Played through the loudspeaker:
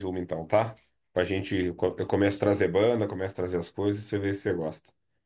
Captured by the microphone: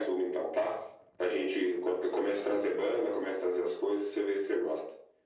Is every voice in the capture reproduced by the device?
Yes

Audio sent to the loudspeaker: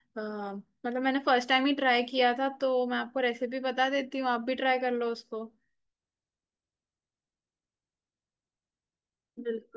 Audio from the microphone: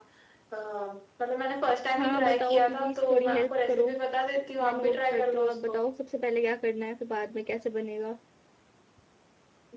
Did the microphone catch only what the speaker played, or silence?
No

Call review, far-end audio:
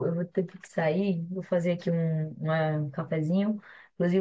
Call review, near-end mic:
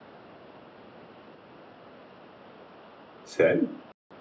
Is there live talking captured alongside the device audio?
Yes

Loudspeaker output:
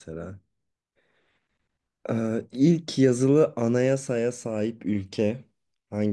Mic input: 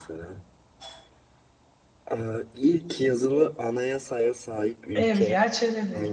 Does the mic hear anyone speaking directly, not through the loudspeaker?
Yes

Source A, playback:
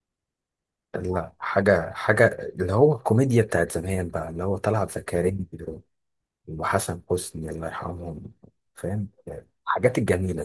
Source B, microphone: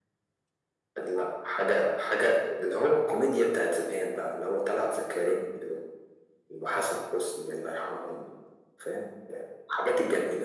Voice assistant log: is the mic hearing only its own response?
Yes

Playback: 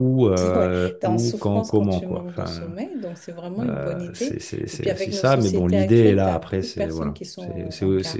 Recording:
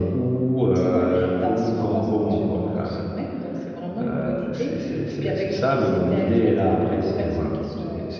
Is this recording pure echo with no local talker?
Yes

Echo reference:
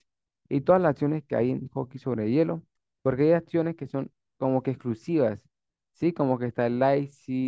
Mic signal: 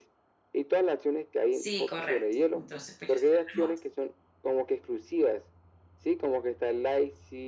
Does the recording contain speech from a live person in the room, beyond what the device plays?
Yes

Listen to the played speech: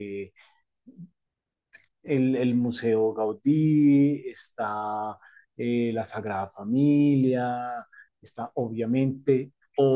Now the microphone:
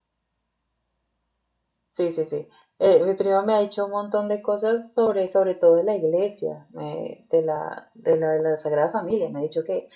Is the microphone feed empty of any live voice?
No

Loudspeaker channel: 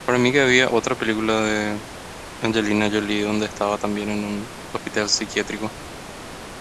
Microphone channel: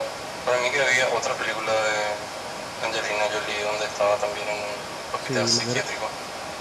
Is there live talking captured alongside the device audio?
Yes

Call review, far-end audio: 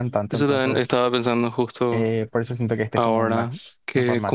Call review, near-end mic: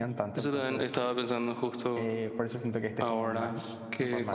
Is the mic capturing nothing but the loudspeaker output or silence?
Yes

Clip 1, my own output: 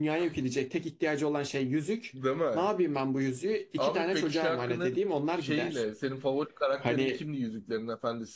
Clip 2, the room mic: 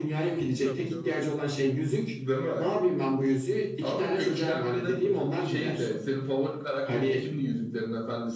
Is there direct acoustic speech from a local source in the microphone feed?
Yes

